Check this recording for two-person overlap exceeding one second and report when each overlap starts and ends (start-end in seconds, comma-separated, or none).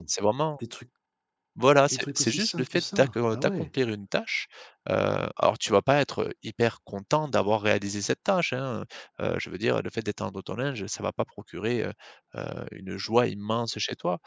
1.9-3.7